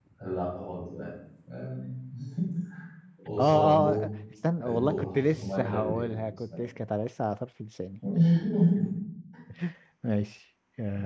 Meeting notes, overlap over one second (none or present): present